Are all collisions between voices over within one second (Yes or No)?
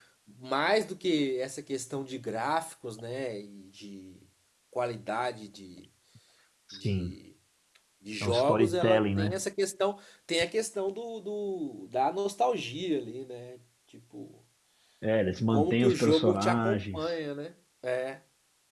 No